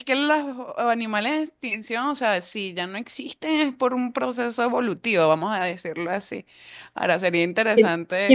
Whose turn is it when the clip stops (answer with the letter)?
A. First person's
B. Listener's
B